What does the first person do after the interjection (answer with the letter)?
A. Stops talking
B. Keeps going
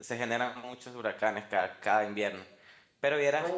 A